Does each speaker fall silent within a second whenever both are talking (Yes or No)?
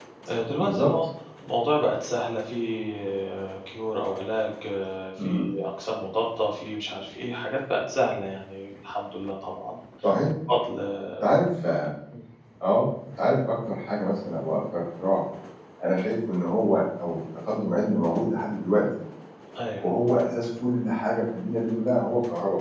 Yes